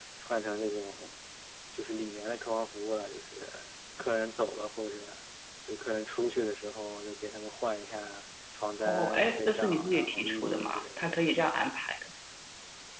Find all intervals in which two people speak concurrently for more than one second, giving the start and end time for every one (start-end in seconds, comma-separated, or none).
8.8-11.3